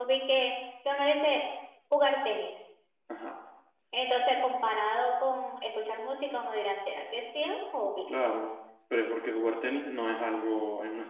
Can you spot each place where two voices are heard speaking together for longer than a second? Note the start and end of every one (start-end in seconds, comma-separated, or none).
none